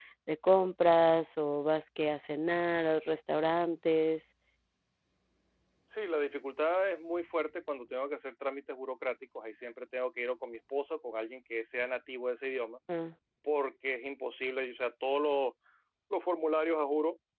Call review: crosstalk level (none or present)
none